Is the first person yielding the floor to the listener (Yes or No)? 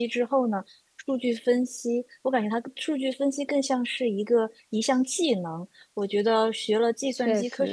No